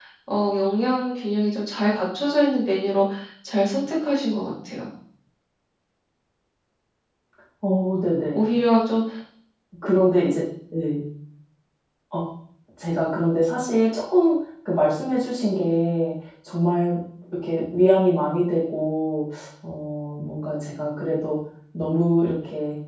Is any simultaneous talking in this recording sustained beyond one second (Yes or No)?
No